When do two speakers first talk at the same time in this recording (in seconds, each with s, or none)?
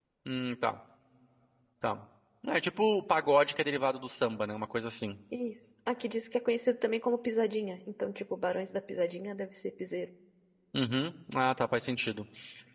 none